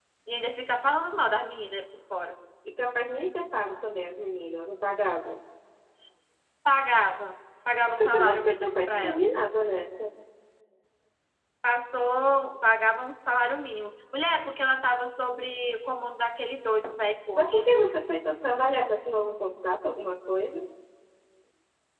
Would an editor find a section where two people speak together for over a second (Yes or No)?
Yes